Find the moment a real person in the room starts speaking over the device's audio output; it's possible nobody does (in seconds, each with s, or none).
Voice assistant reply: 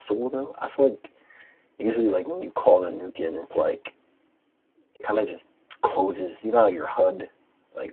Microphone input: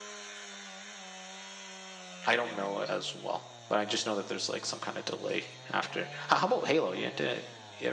2.3 s